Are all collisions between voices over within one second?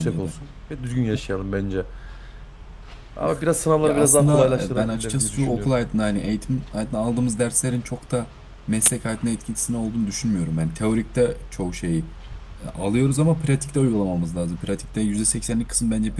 No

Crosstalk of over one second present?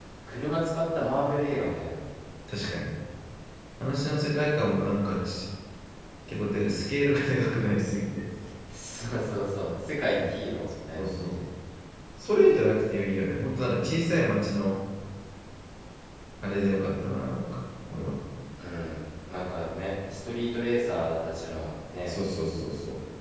No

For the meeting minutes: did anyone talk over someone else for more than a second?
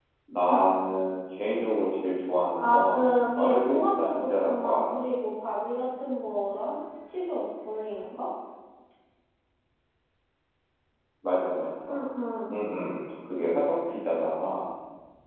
Yes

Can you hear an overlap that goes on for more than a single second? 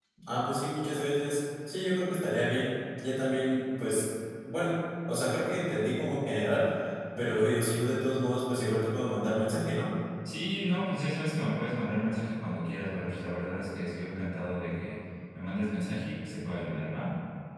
No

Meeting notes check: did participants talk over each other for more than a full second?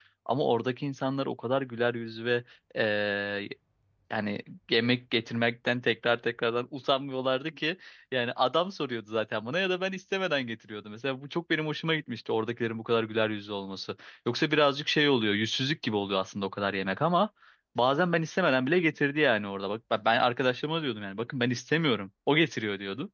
No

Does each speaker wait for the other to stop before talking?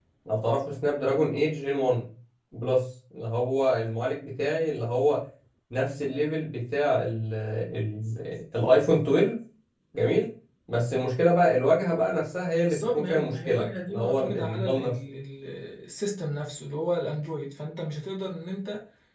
No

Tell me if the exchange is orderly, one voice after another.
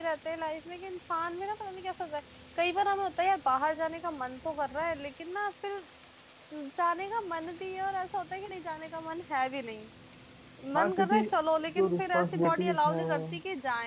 No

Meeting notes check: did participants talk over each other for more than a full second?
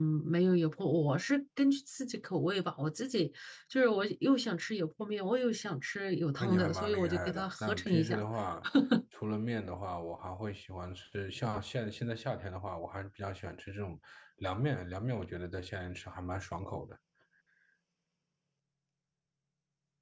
Yes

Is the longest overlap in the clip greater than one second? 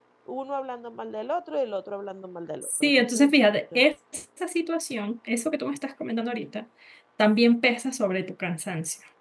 Yes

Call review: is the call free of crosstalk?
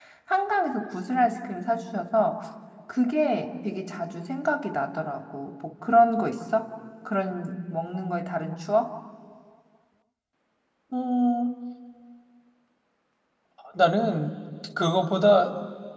Yes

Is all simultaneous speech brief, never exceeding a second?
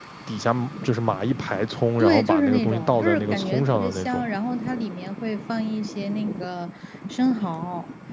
No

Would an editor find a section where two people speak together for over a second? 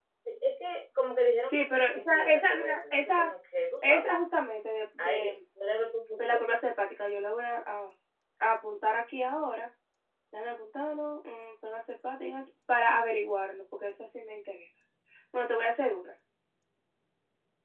Yes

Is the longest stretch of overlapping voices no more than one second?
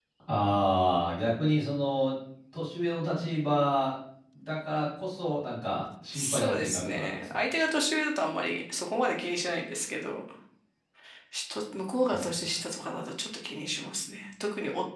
No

